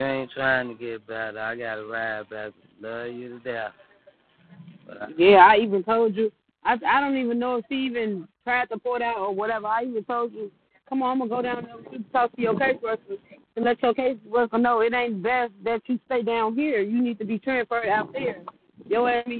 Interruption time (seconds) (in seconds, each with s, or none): none